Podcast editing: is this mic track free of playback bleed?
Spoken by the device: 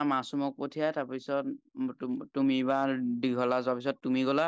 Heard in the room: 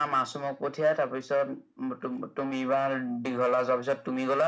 No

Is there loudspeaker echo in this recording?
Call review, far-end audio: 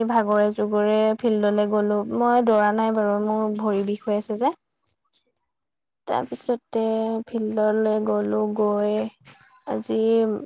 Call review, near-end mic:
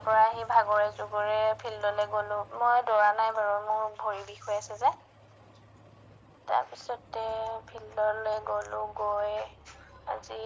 Yes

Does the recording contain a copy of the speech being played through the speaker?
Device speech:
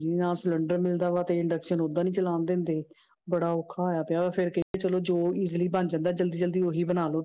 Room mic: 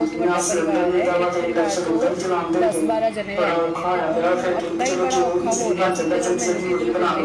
Yes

